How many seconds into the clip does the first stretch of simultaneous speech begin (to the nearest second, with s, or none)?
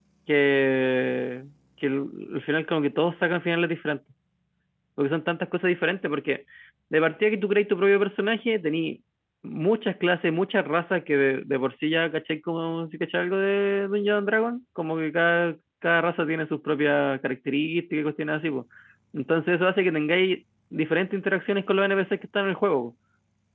none